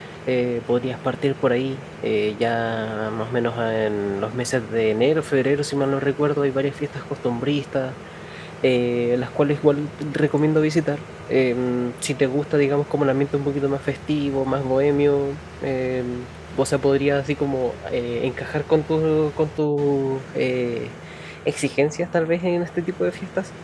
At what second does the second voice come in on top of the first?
none

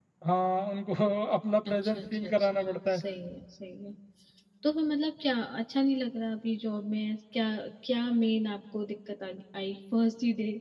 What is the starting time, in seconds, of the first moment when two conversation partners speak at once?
2 s

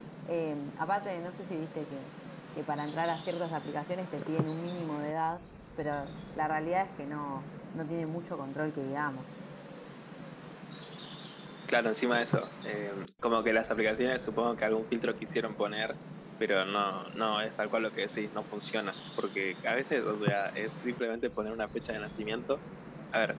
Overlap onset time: none

